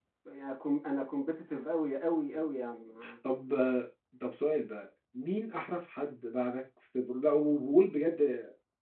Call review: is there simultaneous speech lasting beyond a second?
No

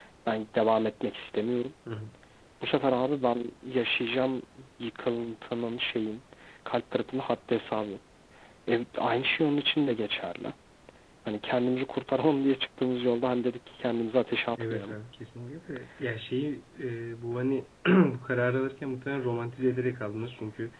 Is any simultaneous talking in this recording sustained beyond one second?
No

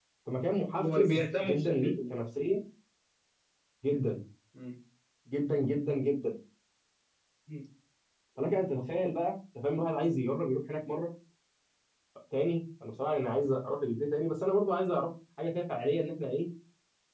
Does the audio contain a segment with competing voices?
Yes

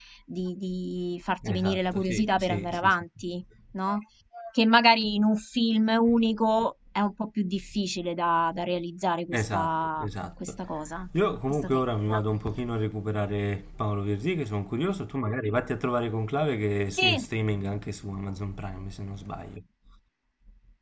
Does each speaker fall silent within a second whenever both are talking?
No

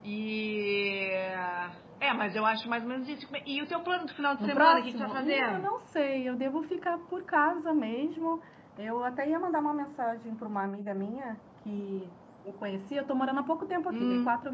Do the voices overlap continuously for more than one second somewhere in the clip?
Yes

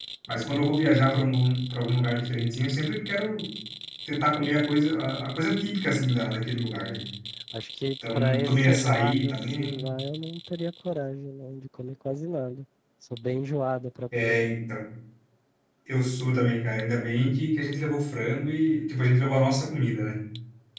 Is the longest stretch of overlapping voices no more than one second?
No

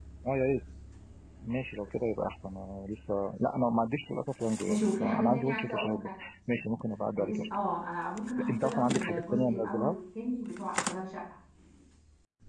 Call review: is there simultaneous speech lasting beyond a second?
Yes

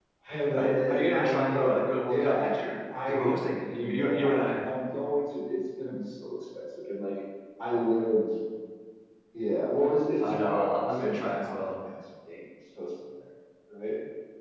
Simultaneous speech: Yes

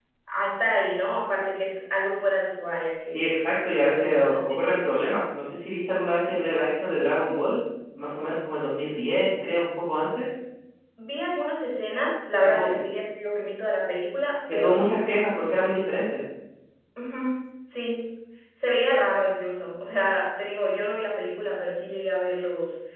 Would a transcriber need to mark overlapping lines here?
Yes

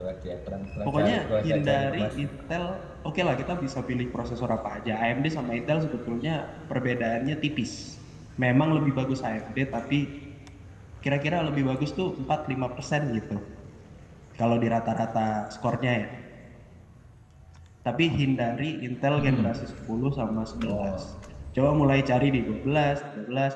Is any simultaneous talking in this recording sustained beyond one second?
Yes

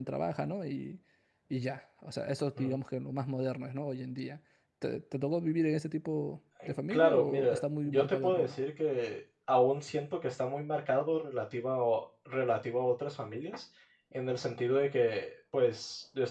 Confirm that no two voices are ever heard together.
No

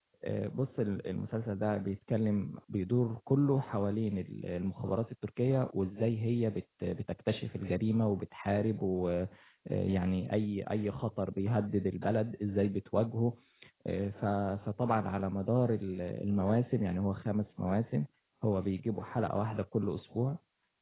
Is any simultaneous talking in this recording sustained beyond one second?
No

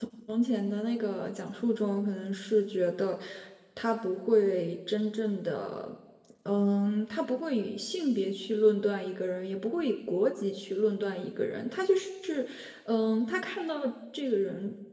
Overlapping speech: No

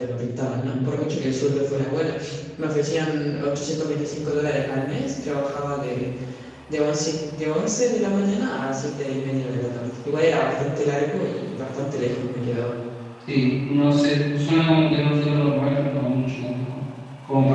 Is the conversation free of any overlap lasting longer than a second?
Yes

